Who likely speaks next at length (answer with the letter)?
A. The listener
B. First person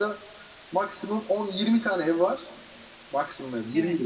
B